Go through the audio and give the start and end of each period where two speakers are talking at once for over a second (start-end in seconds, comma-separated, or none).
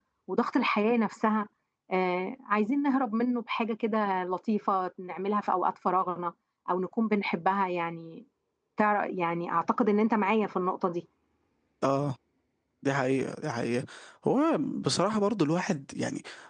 none